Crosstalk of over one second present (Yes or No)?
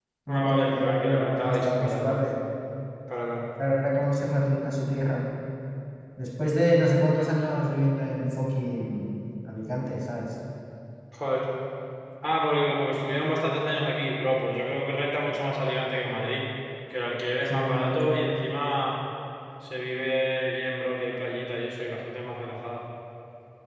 Yes